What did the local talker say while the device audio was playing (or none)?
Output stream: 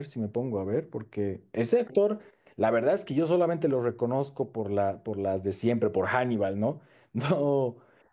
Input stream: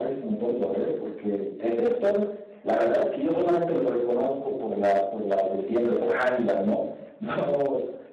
none